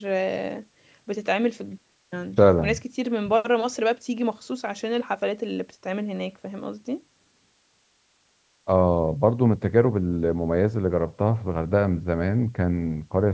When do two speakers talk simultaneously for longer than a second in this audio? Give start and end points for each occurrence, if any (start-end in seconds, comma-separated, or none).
none